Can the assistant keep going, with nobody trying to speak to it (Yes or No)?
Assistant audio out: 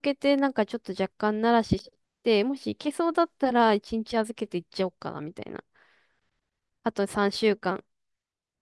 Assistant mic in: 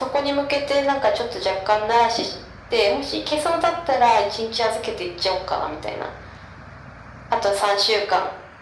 Yes